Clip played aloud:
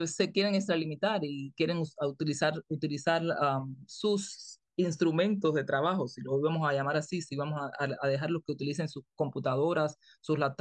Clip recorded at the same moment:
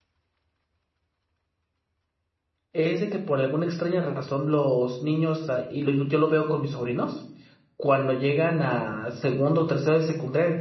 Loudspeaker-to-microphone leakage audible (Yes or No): No